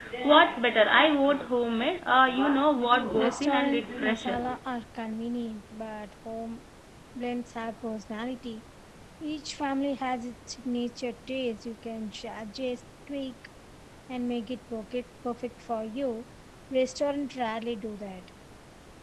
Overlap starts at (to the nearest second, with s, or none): 3 s